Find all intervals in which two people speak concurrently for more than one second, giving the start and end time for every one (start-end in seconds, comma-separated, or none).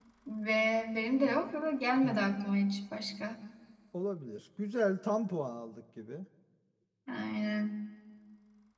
none